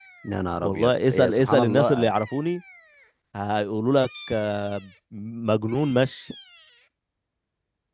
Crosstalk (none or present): present